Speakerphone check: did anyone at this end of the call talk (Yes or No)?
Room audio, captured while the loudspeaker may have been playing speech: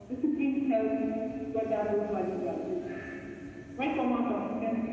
No